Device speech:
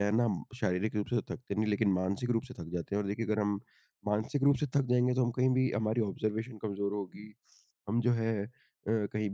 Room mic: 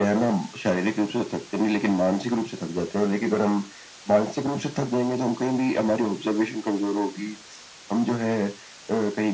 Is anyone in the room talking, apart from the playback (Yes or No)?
No